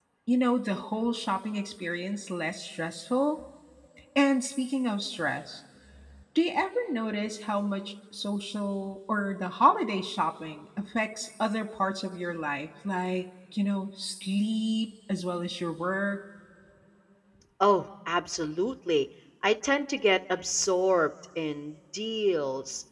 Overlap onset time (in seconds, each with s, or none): none